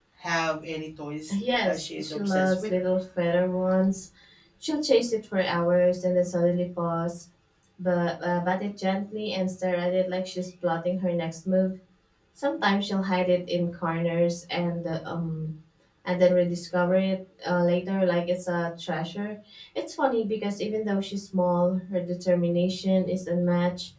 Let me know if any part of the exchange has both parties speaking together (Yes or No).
Yes